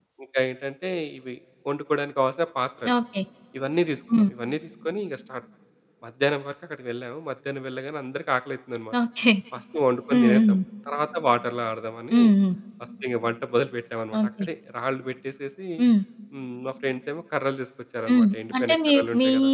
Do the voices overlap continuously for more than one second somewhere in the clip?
Yes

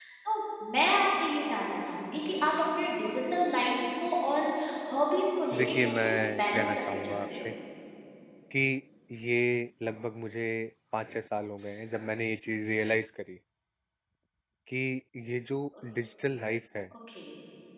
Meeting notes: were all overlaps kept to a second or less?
No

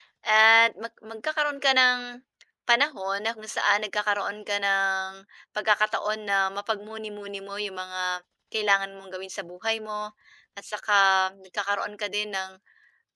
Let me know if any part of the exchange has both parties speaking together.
No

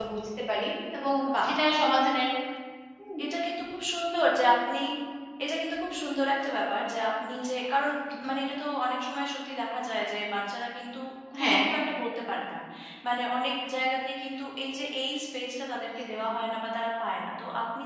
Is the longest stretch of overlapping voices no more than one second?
Yes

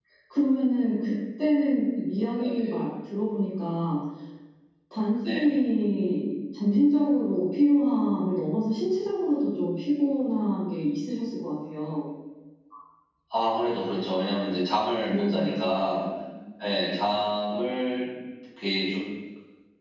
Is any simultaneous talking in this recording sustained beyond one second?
No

